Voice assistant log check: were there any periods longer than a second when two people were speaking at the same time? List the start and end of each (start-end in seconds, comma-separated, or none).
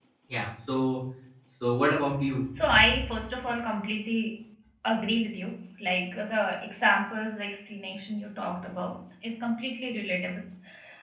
none